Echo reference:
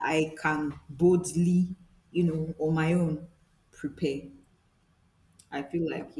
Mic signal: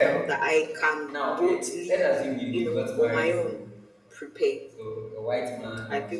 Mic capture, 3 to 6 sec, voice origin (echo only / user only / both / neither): both